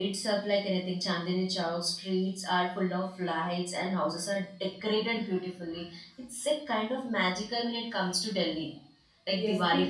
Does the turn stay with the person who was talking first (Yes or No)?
No